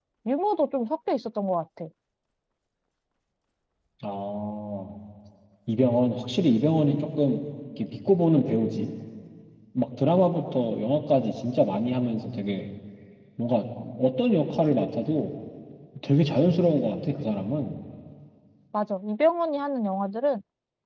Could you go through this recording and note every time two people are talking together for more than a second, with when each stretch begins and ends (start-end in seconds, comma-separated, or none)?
none